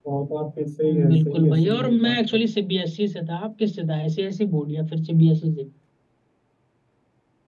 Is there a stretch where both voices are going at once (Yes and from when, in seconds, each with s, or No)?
Yes, from 0.8 s